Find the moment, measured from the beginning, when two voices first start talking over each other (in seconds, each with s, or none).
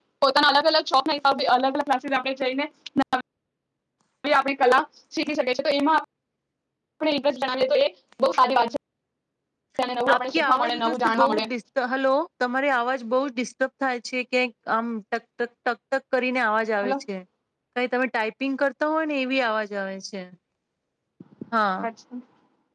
10.1 s